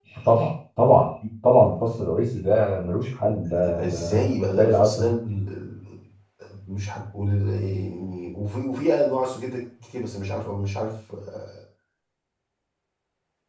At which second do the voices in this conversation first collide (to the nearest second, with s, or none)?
4 s